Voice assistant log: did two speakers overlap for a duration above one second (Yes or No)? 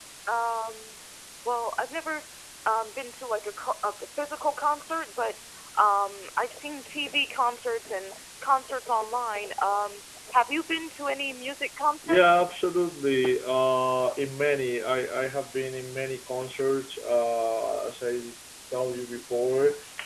No